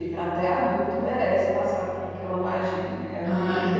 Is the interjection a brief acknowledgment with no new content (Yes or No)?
Yes